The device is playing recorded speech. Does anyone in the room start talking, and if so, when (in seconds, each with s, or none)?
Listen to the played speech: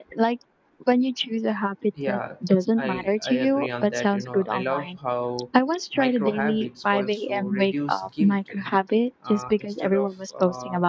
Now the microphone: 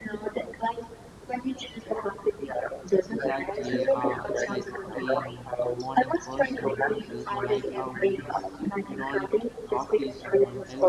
3.1 s